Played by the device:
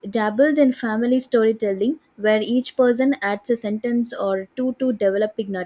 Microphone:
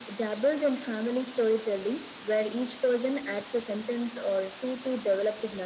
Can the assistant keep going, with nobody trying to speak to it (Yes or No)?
Yes